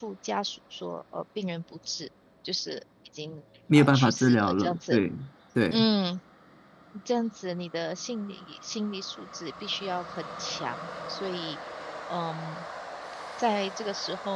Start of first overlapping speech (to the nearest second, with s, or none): 4 s